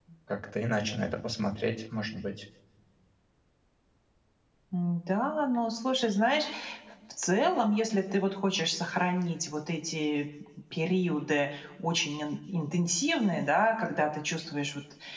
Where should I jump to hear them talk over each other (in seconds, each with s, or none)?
none